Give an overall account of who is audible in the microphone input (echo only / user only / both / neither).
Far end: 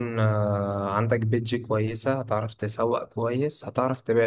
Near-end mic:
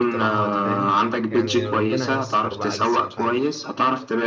both